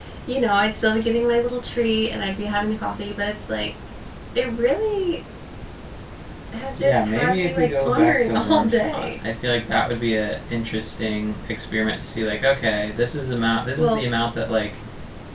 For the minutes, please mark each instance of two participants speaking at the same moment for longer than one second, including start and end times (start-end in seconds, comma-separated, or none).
6.8-9.1